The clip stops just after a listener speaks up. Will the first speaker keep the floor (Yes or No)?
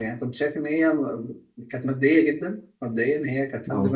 Yes